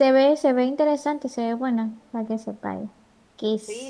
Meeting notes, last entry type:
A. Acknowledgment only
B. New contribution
B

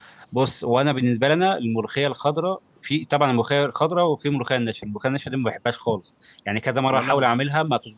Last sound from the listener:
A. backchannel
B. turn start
A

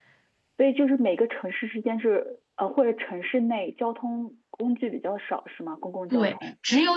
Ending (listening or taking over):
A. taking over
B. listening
A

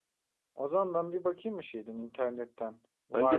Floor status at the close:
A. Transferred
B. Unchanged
A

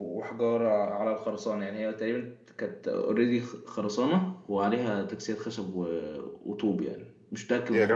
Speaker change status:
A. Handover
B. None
A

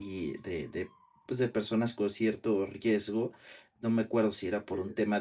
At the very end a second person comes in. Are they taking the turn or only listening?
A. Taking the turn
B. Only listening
B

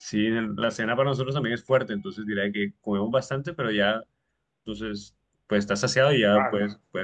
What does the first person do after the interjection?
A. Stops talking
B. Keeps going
A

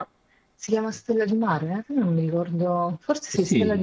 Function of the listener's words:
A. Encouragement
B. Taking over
B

